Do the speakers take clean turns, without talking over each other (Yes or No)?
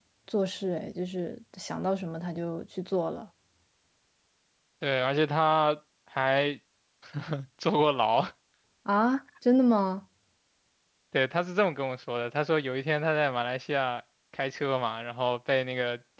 Yes